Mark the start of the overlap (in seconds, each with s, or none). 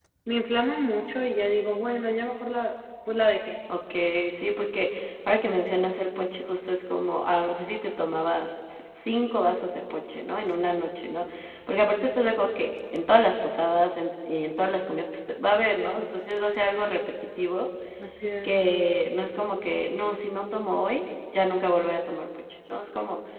none